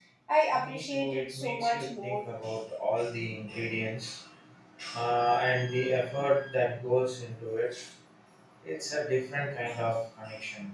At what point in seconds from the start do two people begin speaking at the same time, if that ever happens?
0.6 s

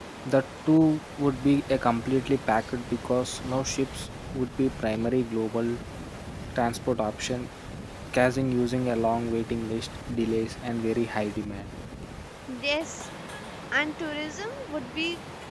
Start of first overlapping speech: none

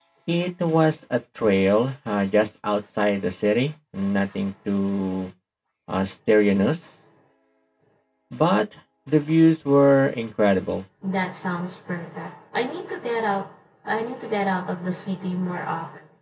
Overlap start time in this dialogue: none

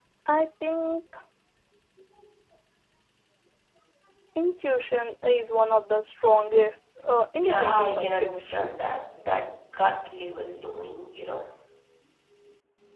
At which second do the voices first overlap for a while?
7.4 s

